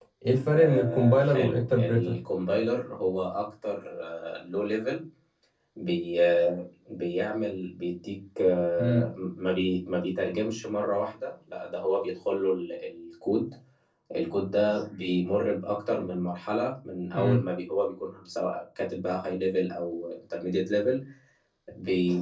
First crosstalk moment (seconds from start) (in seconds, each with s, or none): 0.5 s